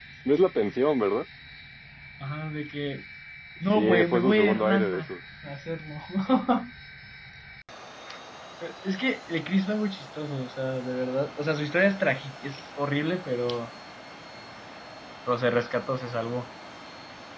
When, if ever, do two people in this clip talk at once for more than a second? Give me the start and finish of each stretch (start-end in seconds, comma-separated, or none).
3.8-5.2